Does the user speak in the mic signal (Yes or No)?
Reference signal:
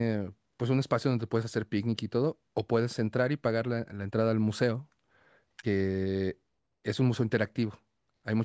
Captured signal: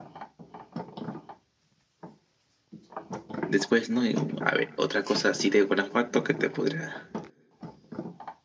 Yes